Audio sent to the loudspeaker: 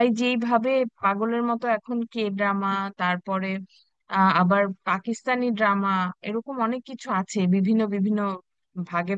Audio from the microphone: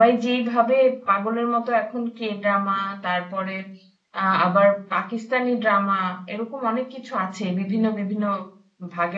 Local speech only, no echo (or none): none